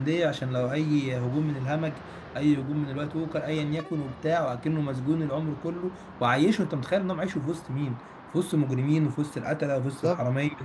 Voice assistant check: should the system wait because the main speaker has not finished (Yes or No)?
No